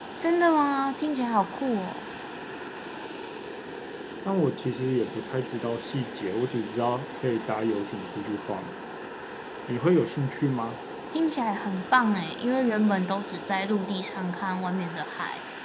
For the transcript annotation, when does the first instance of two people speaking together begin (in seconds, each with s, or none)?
none